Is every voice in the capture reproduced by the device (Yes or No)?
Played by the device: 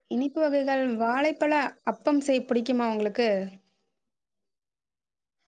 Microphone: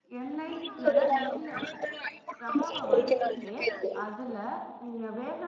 No